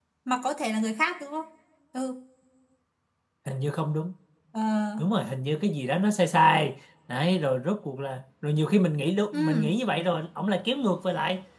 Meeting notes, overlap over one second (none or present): none